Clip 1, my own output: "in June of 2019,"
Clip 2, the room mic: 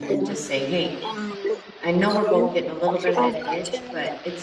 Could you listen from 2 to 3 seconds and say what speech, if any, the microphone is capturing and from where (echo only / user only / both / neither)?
both